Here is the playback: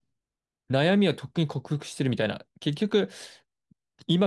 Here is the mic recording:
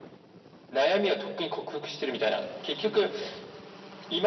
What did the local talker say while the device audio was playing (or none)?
none